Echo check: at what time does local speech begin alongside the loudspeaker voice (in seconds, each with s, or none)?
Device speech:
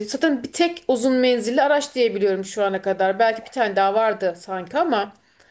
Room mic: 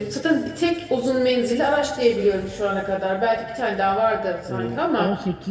4.5 s